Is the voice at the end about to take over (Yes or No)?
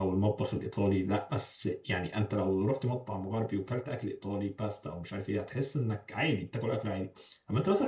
No